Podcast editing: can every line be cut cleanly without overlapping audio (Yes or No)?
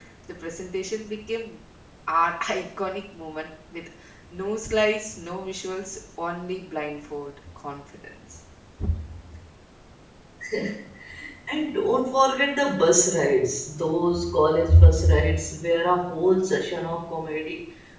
Yes